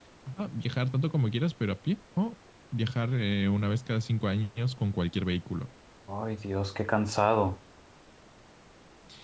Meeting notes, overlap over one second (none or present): none